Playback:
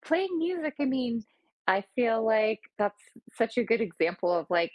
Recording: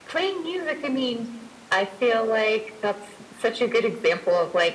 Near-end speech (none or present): none